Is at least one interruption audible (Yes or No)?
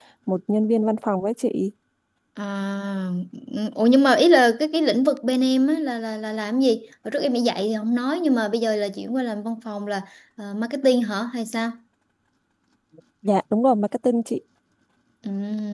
No